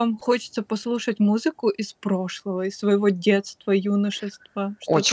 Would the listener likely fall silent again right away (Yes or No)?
No